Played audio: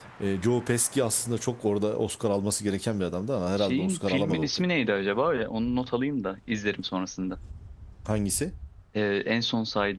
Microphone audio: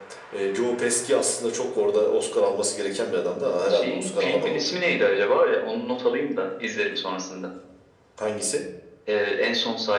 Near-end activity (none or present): none